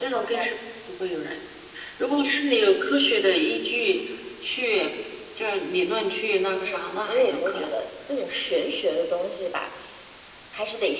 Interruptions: present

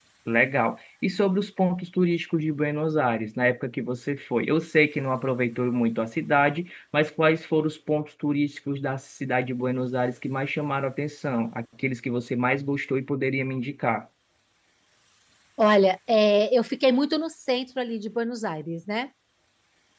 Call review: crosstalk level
none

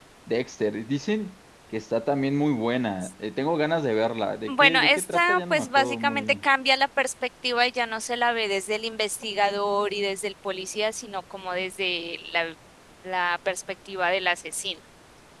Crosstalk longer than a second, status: present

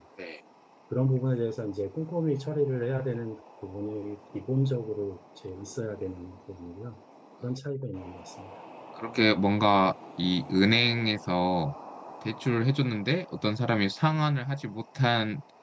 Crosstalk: none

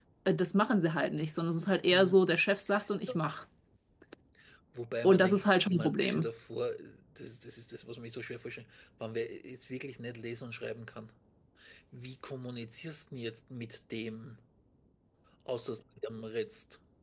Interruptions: present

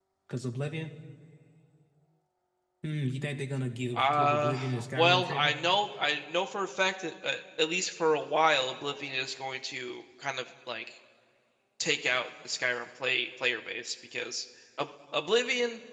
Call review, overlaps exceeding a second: present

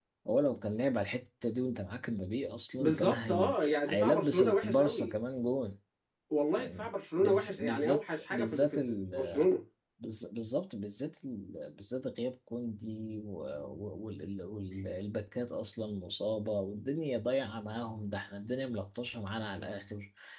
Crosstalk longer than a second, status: present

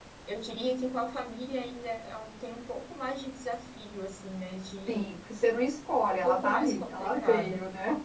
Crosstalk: present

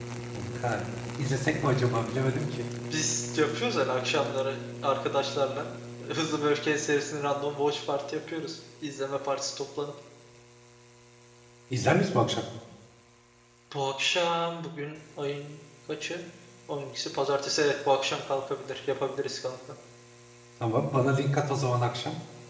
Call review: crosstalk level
none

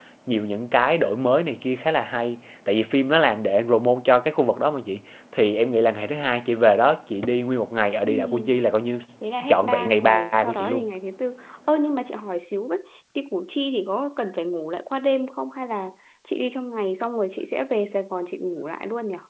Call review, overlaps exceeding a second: present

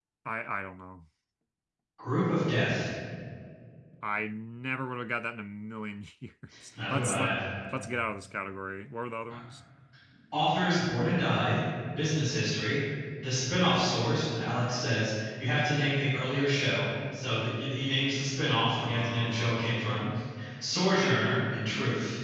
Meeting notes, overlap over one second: present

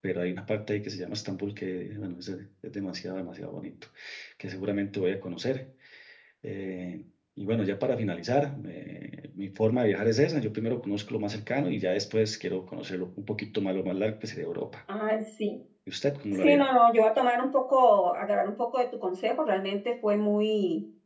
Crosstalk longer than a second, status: none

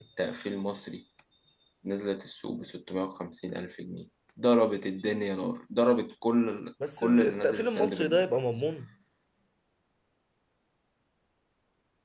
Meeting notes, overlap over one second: present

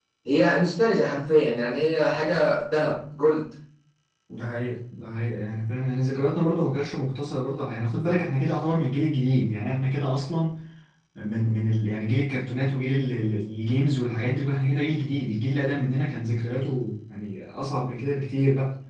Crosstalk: none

